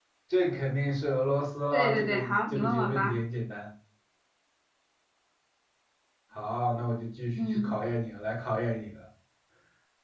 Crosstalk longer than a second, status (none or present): present